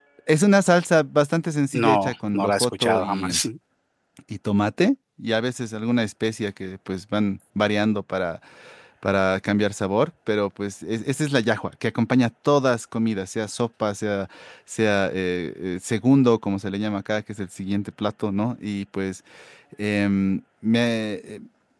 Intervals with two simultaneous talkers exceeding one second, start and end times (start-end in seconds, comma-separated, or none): 1.7-3.4